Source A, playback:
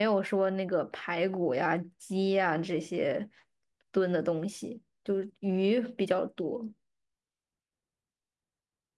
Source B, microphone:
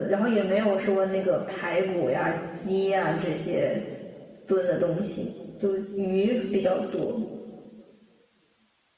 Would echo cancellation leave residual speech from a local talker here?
No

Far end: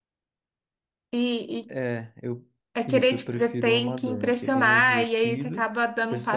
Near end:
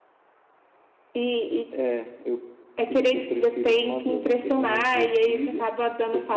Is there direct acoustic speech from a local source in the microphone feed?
No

